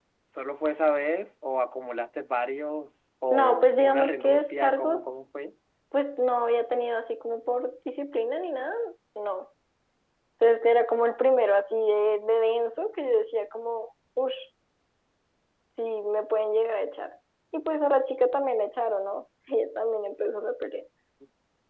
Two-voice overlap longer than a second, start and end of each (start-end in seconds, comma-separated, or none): 3.3-5.0